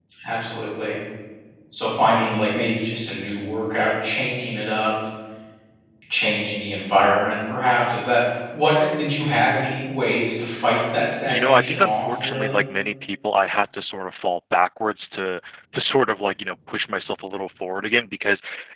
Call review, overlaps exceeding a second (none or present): present